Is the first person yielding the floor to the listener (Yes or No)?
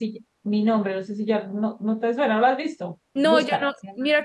Yes